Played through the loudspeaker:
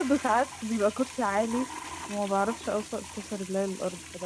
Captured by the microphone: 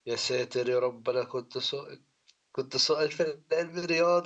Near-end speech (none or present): present